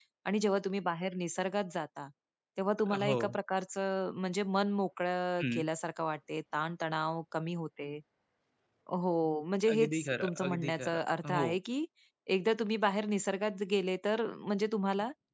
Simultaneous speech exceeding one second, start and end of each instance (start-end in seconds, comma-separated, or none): 9.7-11.5